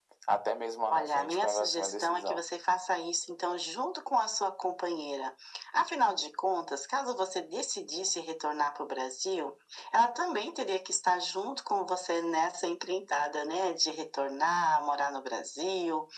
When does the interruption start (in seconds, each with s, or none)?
0.9 s